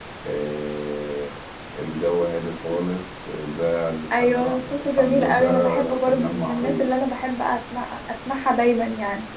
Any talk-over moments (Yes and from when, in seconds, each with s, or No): Yes, from 4.1 s